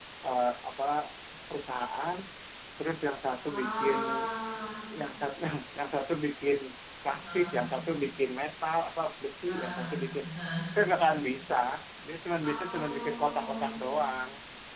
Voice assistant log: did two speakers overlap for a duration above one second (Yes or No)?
Yes